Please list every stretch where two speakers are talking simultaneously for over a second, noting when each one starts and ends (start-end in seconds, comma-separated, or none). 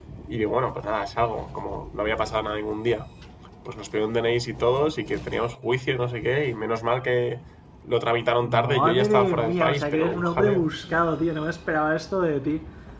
8.7-10.7